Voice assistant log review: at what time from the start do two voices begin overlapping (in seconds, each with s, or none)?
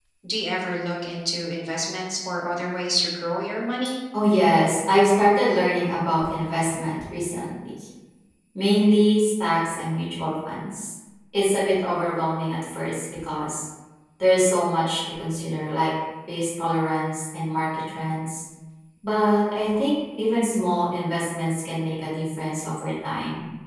none